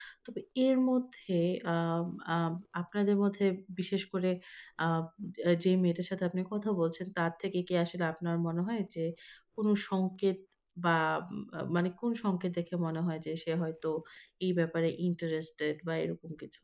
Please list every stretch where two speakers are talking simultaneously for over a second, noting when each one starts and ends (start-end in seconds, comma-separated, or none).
none